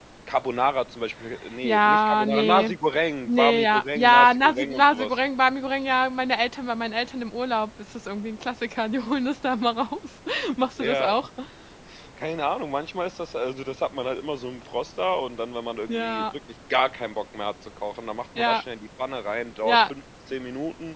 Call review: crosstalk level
present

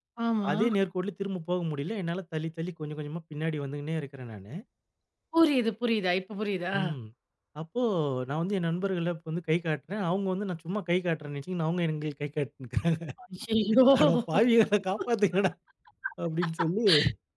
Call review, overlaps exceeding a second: none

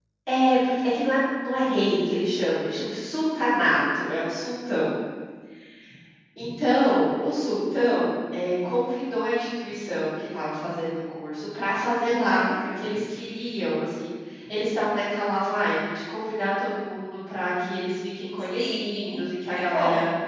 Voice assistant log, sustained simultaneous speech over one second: present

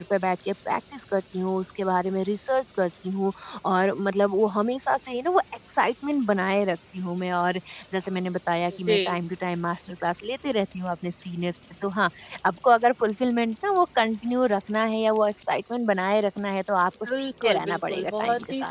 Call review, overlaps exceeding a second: present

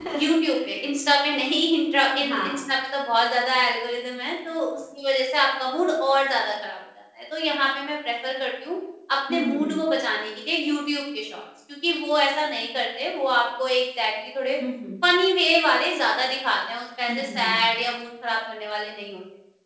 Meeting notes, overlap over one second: none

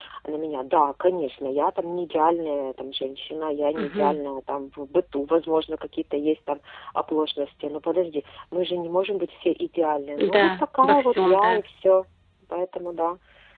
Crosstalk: present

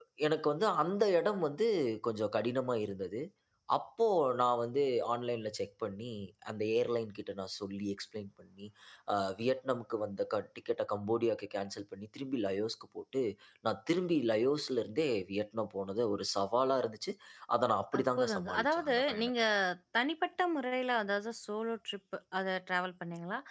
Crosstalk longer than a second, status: present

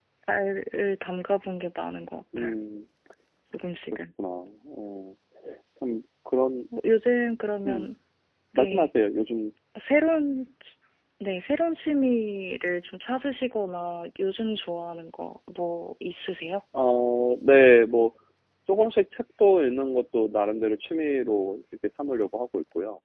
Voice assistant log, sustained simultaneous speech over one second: none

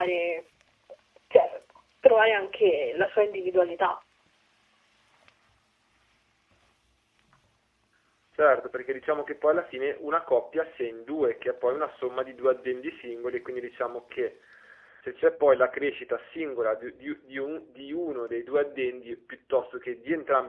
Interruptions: none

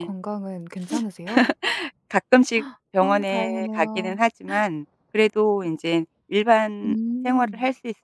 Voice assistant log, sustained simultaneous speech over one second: present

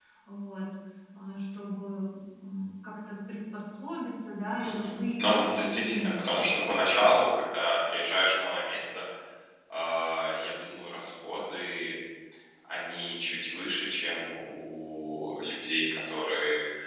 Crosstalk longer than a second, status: present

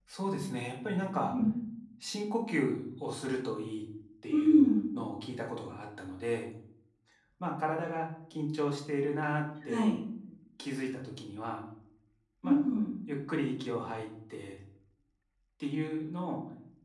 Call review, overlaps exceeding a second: none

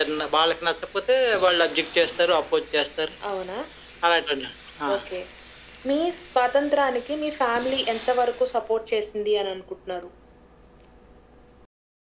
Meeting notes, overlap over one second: none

